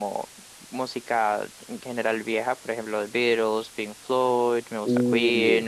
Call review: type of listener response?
listening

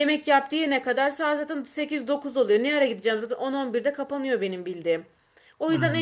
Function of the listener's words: listening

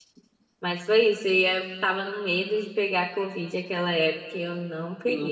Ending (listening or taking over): listening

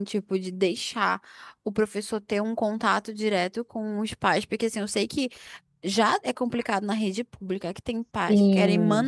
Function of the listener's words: listening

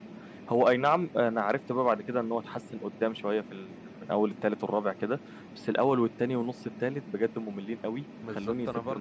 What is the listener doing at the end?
taking over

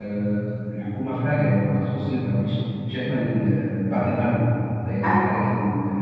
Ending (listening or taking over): listening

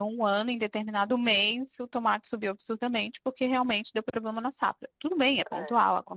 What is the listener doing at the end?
listening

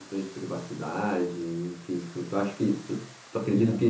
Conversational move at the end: taking over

